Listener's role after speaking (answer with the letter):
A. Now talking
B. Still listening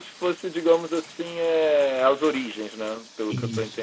A